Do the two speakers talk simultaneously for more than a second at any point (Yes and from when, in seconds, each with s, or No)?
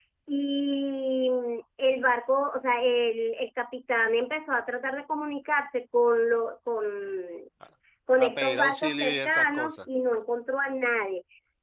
Yes, from 8.2 s